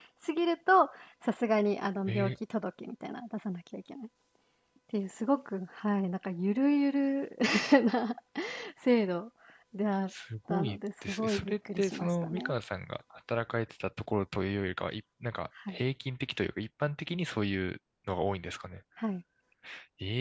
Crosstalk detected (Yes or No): Yes